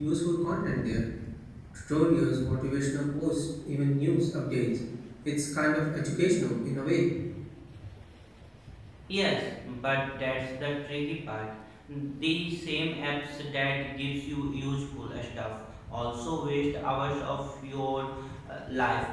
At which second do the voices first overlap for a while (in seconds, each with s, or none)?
none